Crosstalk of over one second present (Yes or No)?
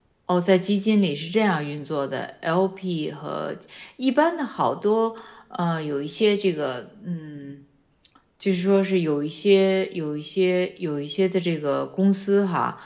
No